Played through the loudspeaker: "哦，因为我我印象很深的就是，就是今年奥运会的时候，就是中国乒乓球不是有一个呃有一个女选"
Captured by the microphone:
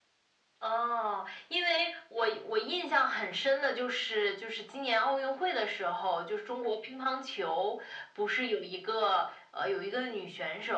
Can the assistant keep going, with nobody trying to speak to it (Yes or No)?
Yes